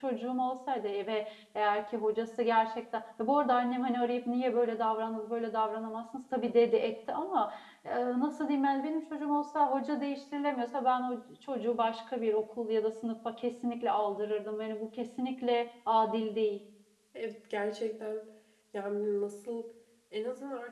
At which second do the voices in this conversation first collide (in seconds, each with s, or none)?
none